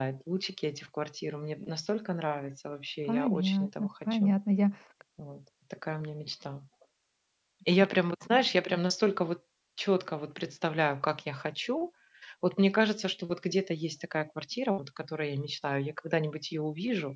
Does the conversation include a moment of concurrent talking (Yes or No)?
Yes